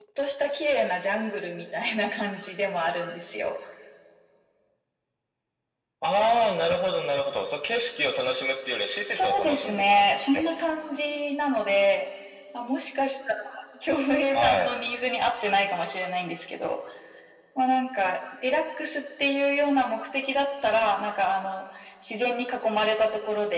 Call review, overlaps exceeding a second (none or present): present